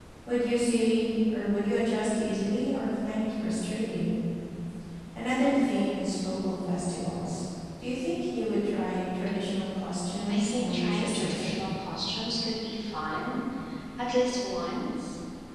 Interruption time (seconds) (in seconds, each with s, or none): 10.3 s